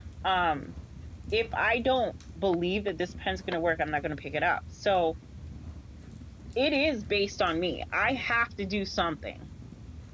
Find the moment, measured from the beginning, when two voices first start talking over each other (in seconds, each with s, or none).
none